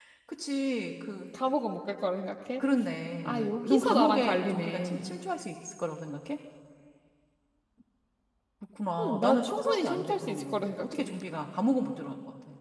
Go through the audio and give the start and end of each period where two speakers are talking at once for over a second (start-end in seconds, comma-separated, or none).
3.2-5.1, 9.0-11.1